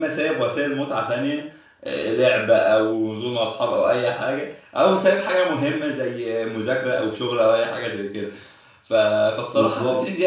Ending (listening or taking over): listening